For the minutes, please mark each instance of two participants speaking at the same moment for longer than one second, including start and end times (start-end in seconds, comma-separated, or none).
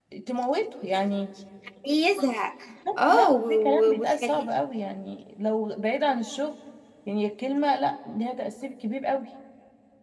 3.1-4.5